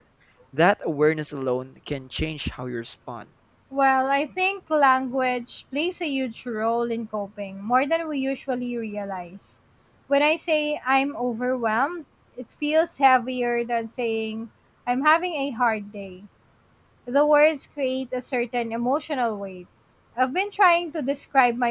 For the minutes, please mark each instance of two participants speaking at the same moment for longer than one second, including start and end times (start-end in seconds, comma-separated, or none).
none